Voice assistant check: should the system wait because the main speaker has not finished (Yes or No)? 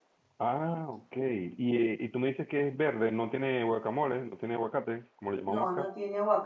No